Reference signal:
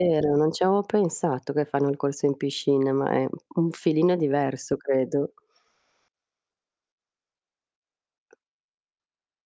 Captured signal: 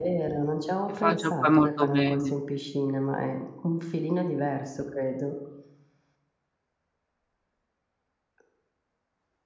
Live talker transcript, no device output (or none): E faccio poi molto bene.